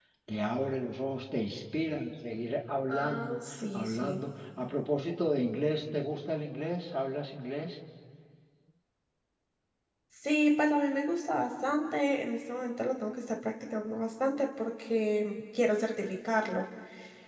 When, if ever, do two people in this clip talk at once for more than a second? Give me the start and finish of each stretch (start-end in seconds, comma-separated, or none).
2.9-4.2